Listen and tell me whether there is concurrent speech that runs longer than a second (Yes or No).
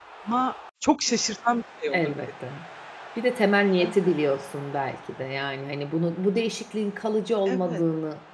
No